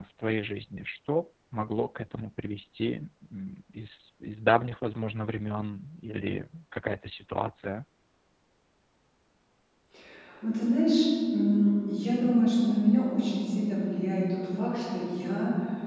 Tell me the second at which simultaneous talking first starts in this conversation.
none

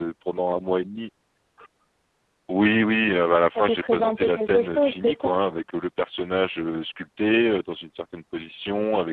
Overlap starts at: 3.5 s

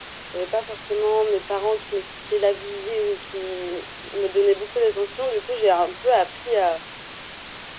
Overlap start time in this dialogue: none

